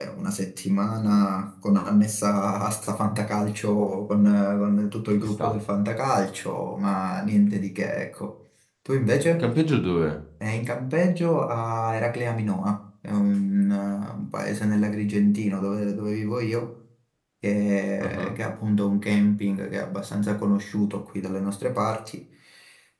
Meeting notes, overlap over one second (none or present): none